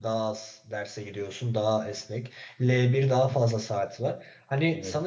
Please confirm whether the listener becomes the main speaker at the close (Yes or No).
No